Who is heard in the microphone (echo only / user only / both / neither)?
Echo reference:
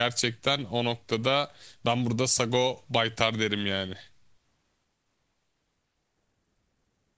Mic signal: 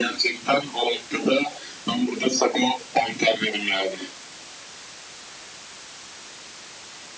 echo only